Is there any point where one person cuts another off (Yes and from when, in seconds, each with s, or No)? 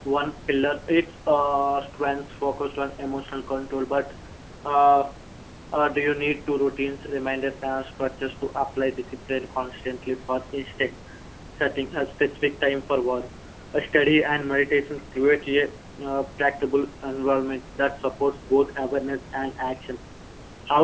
No